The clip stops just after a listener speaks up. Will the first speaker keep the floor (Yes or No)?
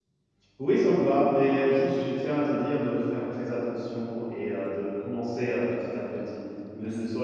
Yes